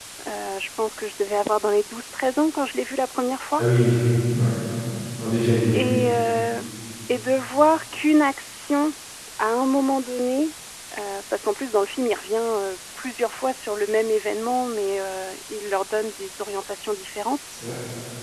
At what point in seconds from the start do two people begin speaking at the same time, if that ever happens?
none

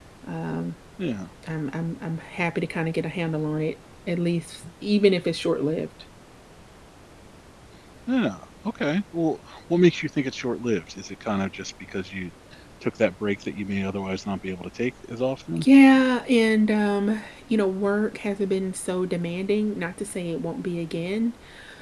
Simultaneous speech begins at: none

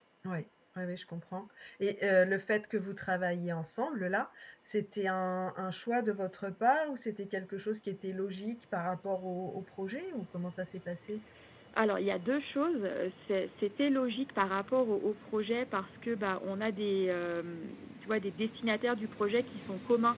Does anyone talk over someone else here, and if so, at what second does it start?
none

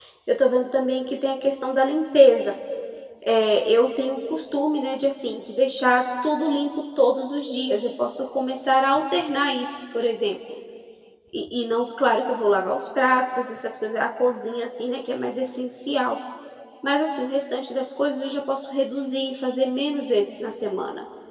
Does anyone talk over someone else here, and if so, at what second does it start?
none

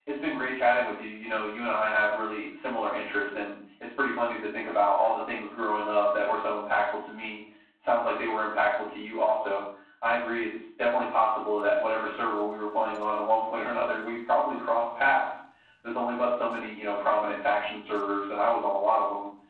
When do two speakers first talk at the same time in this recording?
none

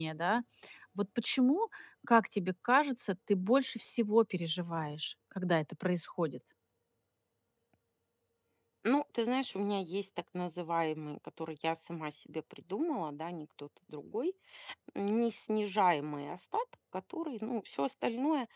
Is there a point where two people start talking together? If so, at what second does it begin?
none

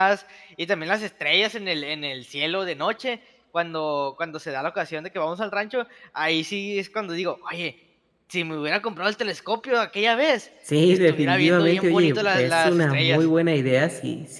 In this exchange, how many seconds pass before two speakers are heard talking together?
10.6 s

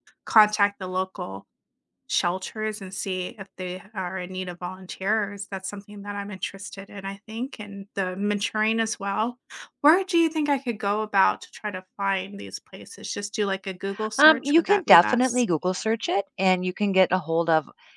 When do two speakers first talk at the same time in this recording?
13.9 s

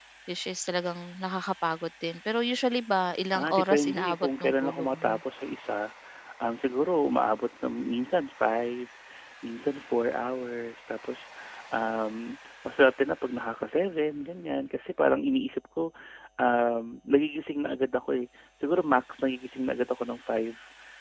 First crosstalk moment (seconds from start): 3.3 s

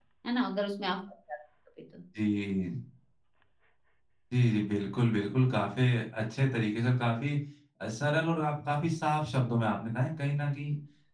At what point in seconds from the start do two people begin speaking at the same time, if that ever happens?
none

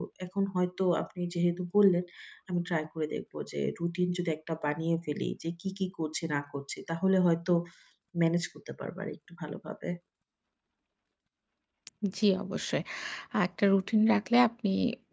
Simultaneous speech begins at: none

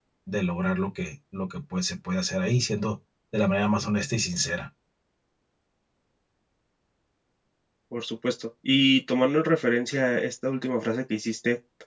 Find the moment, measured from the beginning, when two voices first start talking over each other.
none

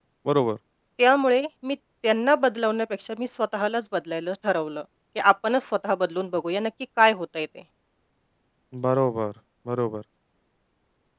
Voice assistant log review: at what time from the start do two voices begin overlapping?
none

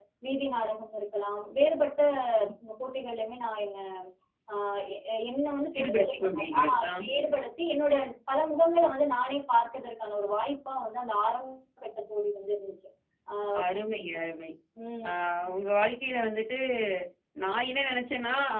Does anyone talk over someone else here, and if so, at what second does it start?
5.8 s

